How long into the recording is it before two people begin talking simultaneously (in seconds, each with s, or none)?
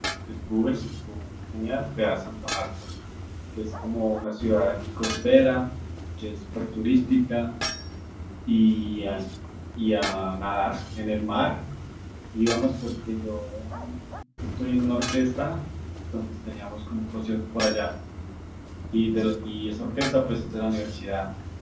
none